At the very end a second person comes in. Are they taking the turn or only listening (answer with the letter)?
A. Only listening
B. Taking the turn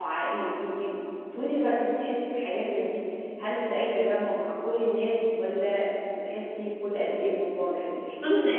B